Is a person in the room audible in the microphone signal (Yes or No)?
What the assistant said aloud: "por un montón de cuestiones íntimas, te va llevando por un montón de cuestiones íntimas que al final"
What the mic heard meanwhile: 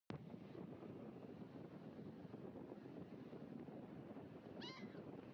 No